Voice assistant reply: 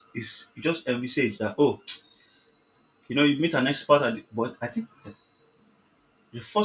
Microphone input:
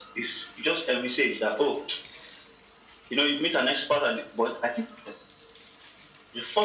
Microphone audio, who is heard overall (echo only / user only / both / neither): echo only